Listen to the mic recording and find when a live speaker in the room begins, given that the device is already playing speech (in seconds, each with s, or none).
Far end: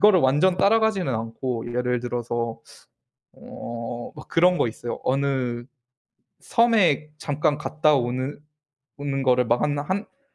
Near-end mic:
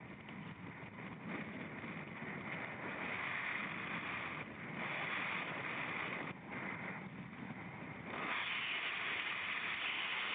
none